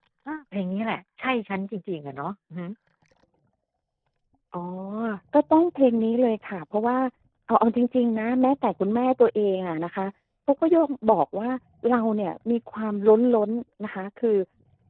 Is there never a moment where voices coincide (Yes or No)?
Yes